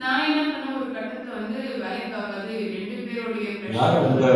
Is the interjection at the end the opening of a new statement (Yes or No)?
Yes